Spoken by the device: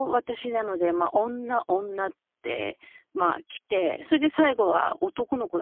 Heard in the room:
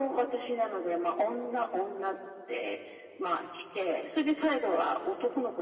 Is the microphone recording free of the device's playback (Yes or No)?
No